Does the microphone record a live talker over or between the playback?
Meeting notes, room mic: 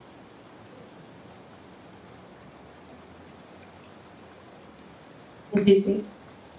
Yes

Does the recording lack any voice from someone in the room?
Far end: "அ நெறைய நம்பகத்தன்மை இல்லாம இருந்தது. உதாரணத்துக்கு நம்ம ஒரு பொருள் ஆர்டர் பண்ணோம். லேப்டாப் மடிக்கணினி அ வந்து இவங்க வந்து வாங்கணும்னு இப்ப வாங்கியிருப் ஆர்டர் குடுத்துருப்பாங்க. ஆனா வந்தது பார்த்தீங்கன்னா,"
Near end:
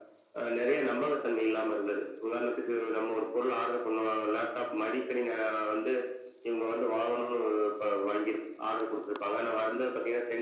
Yes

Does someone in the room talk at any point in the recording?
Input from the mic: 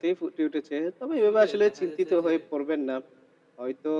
Yes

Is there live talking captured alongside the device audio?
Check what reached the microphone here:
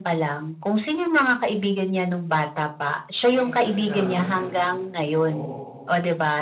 Yes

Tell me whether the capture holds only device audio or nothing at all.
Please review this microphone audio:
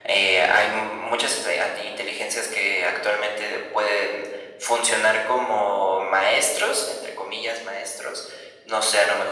Yes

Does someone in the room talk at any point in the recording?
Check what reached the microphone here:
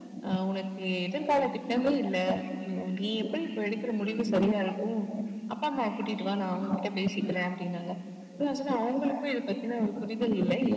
No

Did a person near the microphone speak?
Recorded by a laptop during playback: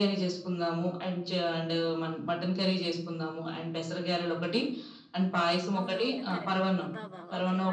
Yes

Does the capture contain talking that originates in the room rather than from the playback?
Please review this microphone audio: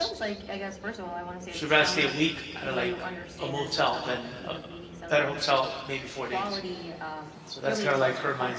Yes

